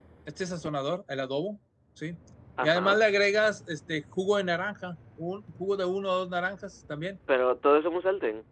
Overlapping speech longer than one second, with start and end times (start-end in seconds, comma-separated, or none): none